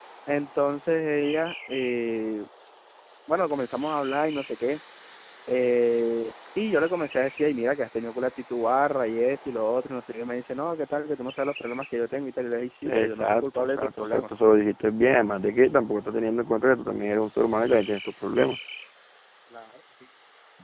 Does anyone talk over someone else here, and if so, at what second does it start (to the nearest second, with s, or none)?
13 s